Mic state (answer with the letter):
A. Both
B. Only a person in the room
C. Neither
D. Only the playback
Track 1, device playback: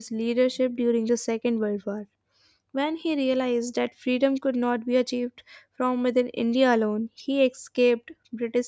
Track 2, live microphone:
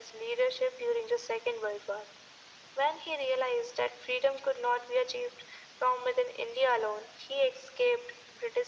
D